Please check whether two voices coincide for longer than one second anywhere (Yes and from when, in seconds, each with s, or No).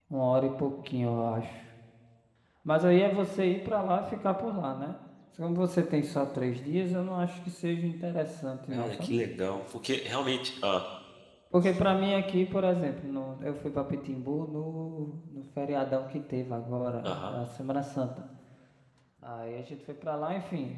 No